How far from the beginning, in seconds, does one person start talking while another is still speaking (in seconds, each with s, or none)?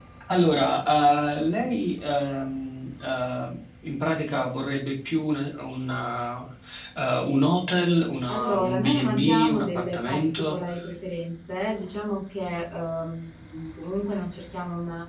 8.3 s